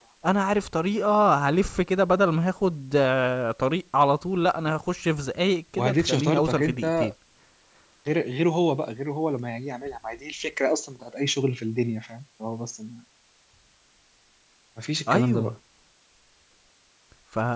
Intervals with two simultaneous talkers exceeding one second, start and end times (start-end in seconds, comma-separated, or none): 5.8-7.1